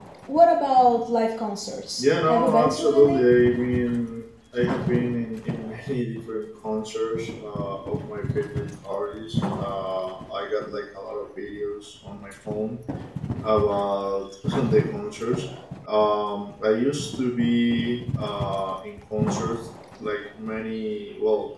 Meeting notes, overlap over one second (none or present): present